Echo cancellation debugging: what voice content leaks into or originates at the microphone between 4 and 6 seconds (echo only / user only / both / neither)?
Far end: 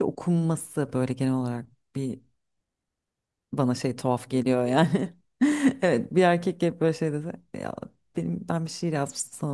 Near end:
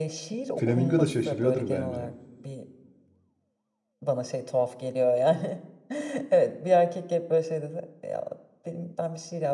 echo only